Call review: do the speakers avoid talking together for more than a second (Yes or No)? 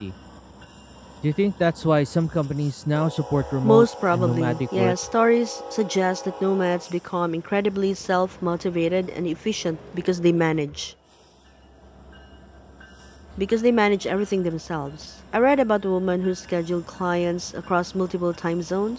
No